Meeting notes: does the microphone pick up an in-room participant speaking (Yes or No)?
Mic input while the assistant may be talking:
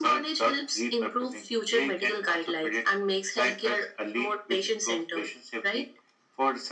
No